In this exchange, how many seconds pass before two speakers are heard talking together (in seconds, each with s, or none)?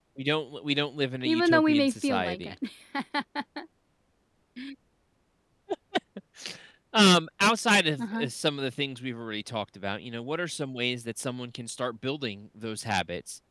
1.2 s